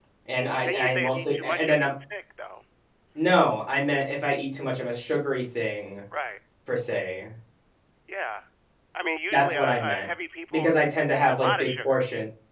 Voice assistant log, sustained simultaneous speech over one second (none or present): present